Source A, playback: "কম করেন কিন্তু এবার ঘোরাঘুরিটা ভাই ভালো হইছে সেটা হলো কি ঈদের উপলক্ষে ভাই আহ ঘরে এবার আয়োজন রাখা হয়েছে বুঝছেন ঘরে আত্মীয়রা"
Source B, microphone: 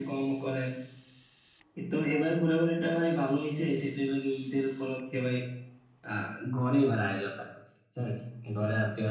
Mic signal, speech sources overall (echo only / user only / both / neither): echo only